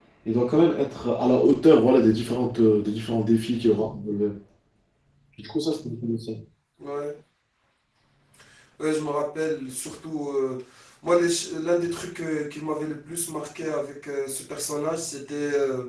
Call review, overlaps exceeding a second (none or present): none